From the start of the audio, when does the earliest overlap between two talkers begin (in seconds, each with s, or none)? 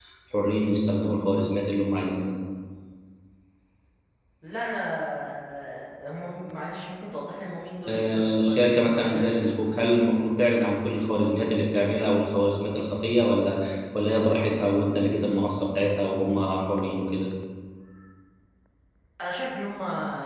7.9 s